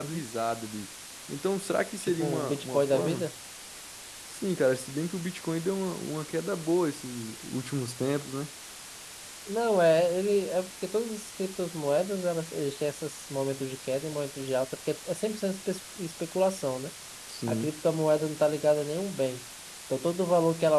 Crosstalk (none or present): present